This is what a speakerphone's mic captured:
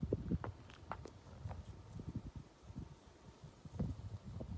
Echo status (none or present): none